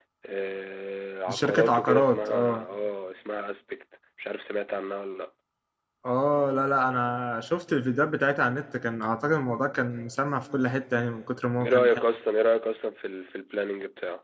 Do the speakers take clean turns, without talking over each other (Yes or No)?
No